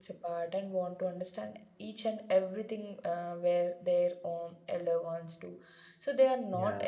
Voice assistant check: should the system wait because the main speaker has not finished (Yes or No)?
Yes